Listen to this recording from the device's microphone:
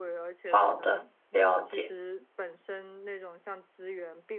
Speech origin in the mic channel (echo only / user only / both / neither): both